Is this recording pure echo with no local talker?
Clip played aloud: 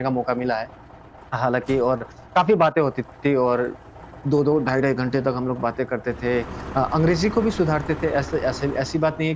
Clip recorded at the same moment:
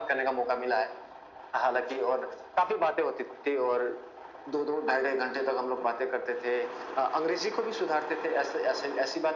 Yes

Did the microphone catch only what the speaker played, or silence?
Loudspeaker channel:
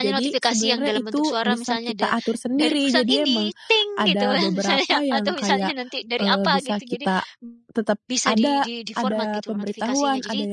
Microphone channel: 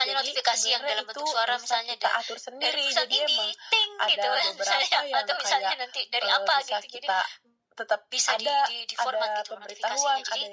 Yes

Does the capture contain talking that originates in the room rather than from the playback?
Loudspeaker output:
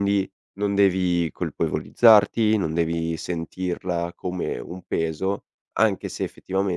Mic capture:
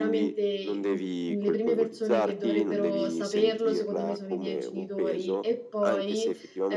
Yes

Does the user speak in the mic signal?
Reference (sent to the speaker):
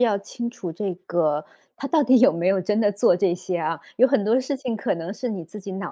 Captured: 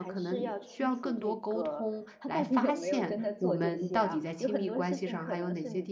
Yes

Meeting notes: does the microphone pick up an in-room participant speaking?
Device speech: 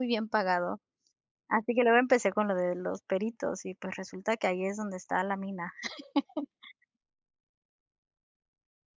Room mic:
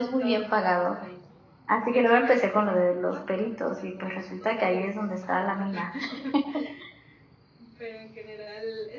Yes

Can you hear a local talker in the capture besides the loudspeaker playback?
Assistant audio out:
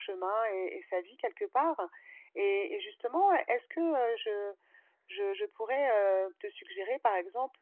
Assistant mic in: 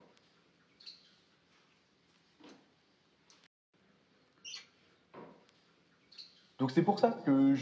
Yes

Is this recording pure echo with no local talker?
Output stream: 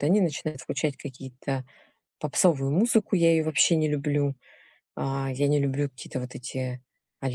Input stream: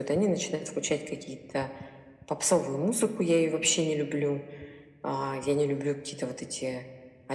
Yes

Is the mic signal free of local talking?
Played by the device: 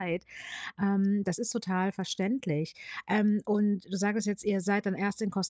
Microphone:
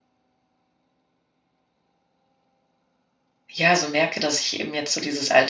No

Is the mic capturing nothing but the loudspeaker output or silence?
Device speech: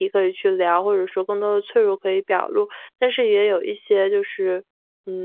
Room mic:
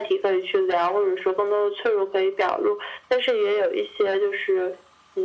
Yes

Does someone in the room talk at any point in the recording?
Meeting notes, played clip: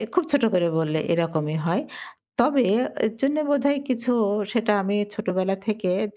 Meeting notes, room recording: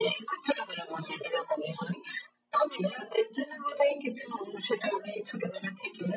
No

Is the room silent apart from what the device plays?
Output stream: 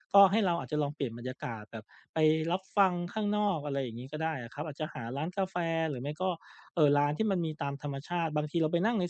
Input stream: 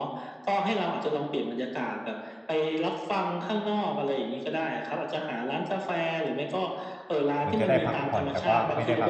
No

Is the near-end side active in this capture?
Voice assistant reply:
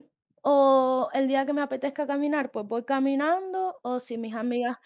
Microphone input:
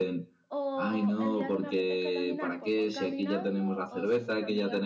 Yes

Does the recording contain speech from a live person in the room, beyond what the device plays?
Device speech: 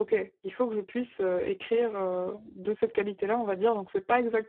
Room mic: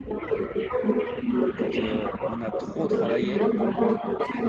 Yes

